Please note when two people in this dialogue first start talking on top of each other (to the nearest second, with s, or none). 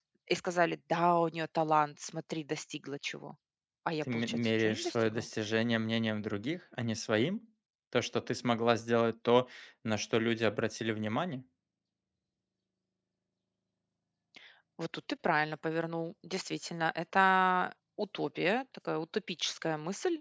4 s